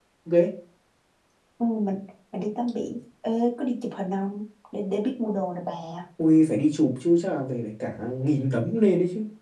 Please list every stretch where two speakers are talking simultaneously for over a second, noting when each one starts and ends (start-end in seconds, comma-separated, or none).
none